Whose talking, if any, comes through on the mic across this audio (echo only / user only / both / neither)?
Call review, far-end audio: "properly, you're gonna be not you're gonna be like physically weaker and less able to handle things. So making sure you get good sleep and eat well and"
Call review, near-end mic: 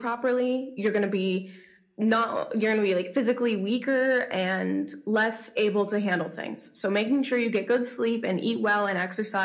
echo only